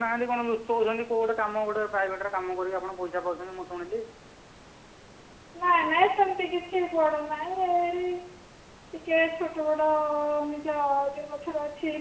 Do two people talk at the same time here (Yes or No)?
No